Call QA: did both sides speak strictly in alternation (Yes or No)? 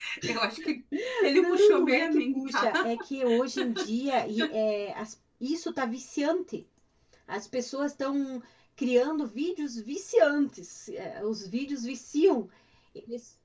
No